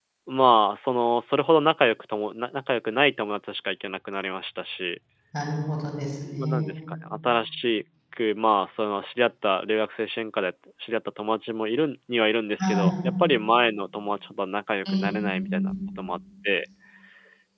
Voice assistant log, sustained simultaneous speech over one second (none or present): none